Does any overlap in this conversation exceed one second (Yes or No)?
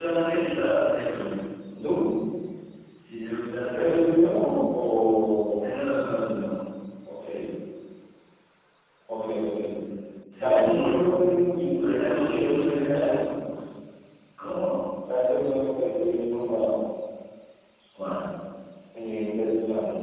Yes